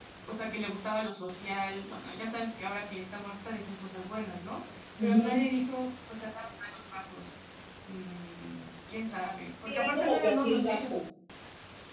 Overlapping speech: Yes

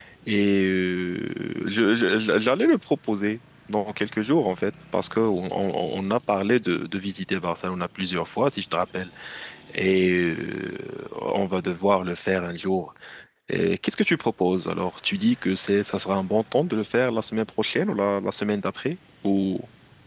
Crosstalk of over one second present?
No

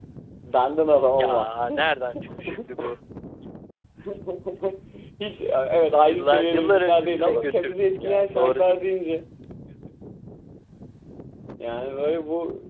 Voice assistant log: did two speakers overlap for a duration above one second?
Yes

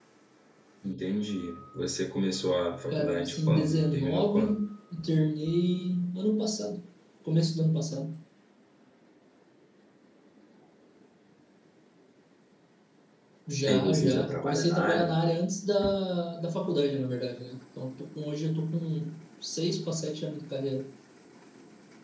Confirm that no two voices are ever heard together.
No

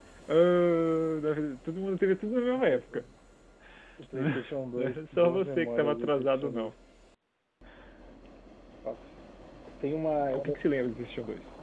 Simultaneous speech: Yes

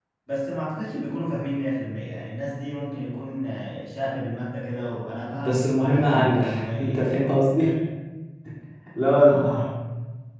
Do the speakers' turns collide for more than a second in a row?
Yes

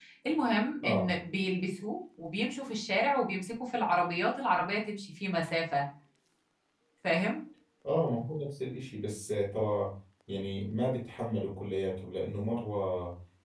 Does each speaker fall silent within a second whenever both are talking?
Yes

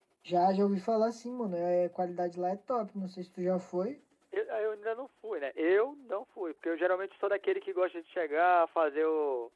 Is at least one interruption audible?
No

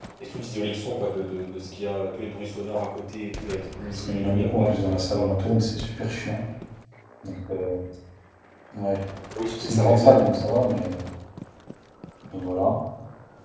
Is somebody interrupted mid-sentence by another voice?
Yes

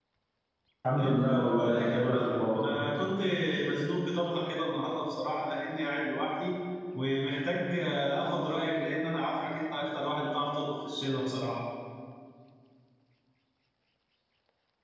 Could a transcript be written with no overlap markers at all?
No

